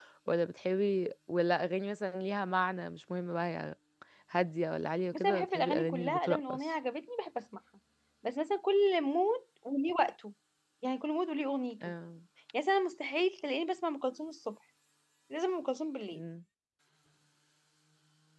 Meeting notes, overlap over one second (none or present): present